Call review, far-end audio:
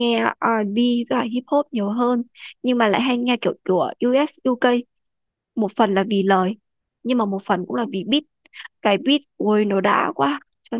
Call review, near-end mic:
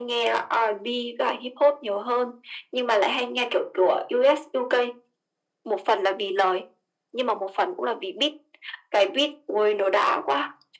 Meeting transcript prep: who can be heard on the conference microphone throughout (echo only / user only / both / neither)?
echo only